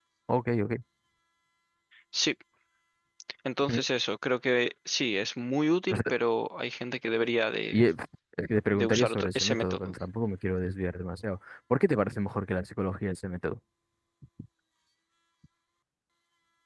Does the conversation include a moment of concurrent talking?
Yes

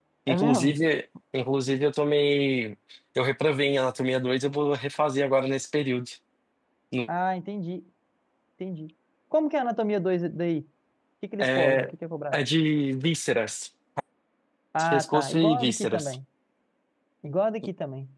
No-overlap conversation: No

